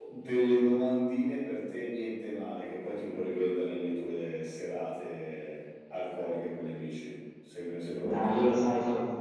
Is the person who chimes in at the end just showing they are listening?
No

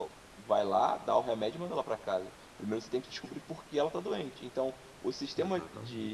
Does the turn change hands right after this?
No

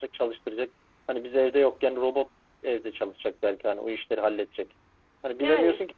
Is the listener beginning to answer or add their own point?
No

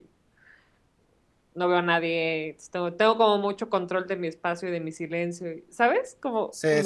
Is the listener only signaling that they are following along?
No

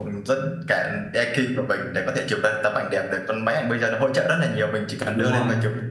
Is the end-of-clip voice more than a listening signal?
No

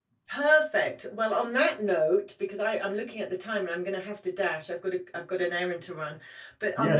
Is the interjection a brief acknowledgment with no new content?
Yes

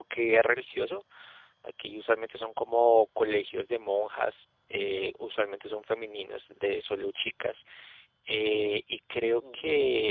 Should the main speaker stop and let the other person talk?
No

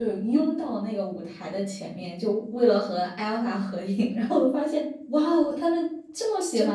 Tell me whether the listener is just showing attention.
No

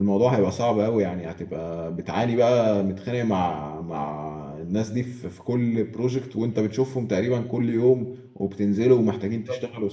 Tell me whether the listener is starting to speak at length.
No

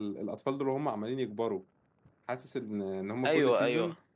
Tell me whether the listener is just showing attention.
Yes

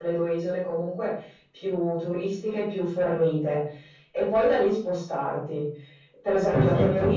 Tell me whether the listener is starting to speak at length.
No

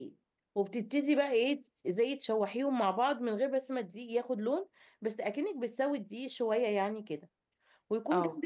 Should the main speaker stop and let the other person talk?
No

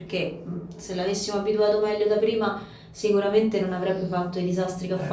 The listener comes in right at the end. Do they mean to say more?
Yes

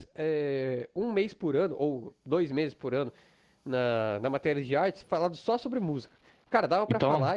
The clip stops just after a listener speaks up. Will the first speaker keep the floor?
Yes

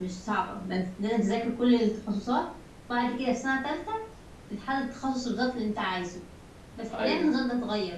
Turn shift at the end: No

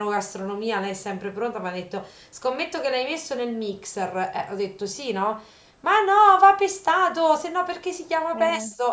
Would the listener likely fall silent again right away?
Yes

